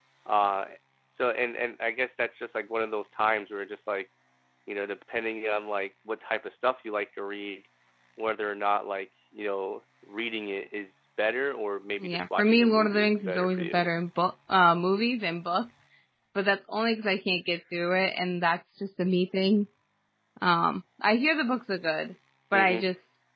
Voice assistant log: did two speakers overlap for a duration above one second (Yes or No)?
Yes